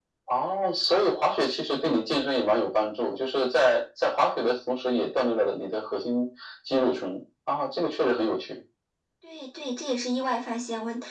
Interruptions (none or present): none